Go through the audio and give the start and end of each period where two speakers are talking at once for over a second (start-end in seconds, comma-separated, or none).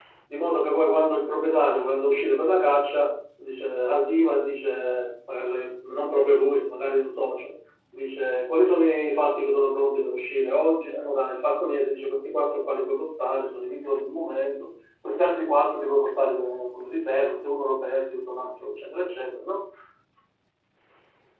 none